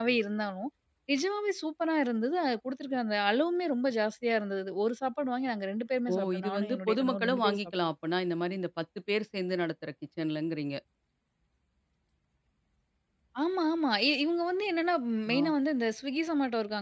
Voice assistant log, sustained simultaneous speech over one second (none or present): present